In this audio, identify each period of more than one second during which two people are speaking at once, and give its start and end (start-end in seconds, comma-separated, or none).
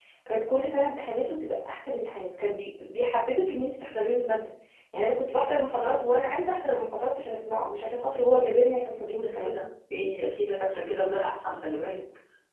none